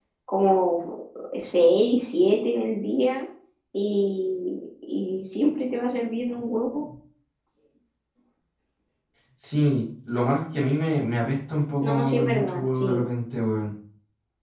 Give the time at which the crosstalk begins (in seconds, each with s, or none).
11.8 s